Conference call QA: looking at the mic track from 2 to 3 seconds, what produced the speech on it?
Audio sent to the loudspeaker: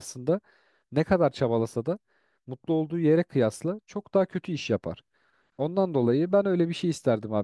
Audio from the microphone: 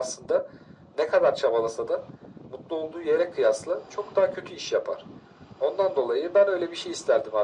echo only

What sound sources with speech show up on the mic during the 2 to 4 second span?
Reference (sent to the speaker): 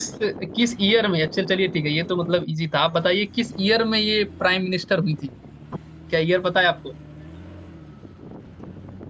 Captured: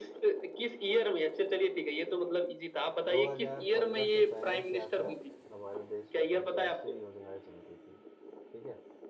both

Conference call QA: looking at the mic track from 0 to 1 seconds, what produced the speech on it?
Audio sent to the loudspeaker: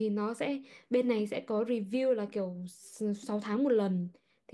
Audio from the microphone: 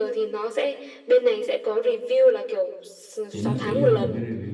echo only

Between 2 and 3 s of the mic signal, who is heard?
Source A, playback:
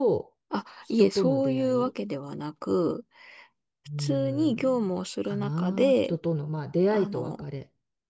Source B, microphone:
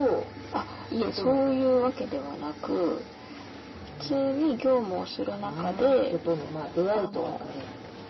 echo only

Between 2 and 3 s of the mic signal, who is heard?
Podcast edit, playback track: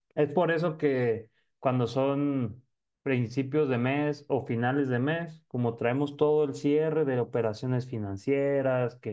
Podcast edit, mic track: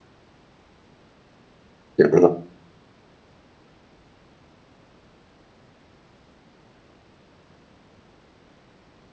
user only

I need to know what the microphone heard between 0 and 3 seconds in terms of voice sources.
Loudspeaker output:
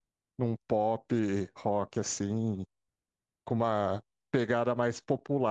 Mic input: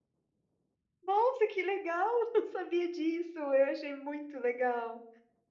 user only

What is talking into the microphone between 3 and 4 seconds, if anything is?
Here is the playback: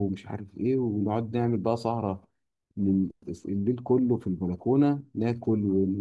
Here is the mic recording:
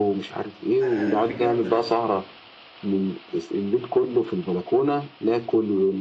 echo only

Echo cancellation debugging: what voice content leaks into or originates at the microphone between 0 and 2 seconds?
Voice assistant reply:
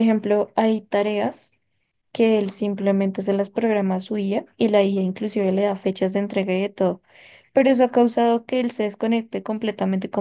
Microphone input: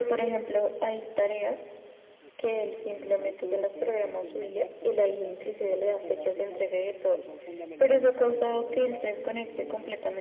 echo only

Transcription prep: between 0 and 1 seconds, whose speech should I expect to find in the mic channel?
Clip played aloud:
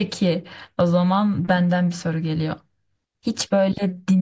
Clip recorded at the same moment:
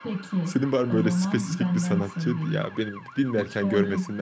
both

